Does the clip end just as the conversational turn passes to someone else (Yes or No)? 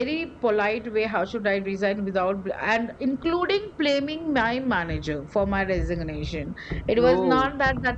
No